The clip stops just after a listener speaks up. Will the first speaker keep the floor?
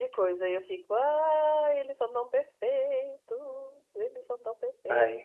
No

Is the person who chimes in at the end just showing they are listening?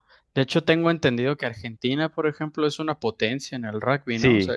No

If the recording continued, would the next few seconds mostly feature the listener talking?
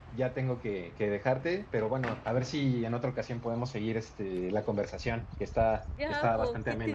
Yes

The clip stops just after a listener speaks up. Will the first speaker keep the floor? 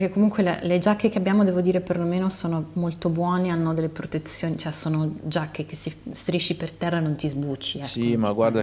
No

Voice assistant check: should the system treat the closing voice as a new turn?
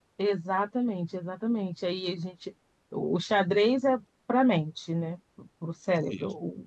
No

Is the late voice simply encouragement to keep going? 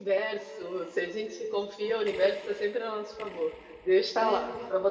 Yes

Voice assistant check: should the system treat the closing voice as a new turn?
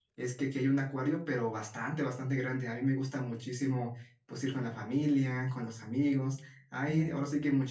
No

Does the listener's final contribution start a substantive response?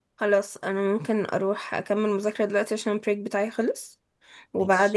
No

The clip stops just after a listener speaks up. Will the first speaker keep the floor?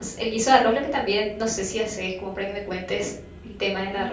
No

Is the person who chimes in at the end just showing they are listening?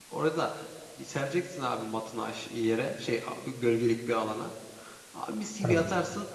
Yes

